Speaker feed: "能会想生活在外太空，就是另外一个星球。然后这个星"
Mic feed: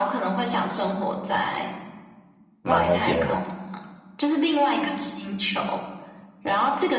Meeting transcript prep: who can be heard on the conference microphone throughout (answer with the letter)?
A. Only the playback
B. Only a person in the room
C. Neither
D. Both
D